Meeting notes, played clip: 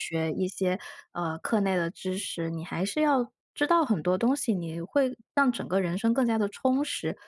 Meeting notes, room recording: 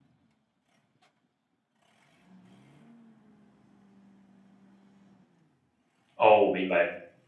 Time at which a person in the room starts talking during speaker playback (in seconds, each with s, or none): 6.2 s